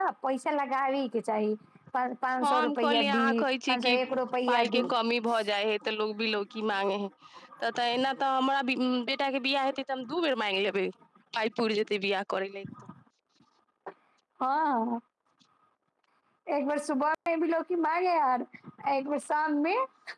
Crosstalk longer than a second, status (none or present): present